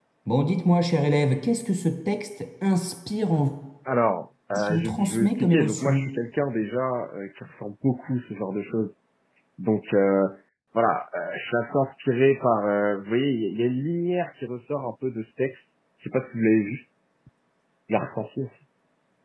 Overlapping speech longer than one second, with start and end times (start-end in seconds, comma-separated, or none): 4.5-6.0